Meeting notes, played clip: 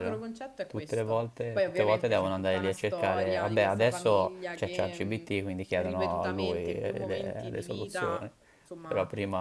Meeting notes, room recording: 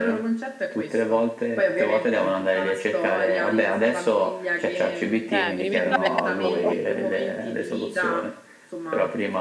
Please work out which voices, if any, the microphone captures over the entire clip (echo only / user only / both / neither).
both